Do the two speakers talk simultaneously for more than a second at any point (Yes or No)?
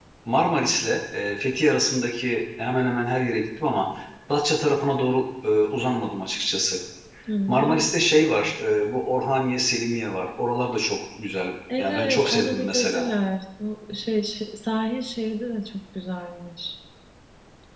Yes